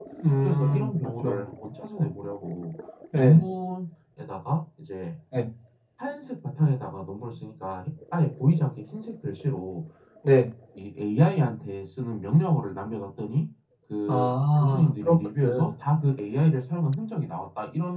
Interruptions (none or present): present